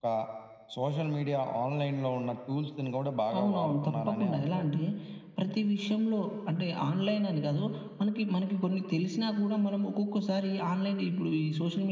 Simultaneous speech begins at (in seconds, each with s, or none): 3.3 s